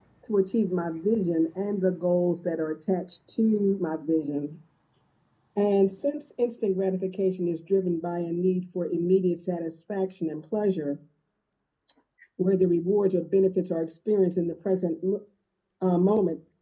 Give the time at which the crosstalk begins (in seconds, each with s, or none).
none